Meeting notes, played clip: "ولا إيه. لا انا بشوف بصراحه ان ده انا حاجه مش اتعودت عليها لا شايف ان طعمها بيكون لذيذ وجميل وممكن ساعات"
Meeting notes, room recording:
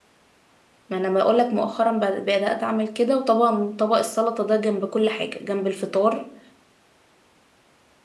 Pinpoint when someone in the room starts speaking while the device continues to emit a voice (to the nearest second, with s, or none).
1 s